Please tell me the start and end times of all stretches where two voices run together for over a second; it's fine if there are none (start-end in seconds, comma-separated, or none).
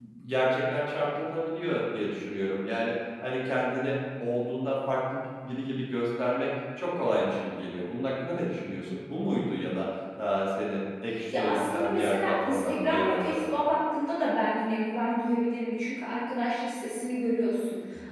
11.4-13.4